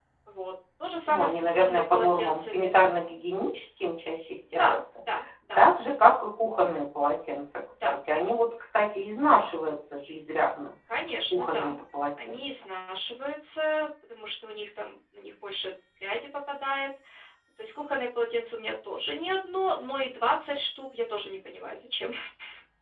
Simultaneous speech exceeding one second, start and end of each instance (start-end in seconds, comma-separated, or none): 1.1-2.8